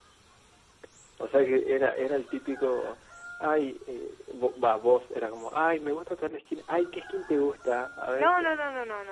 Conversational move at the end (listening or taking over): taking over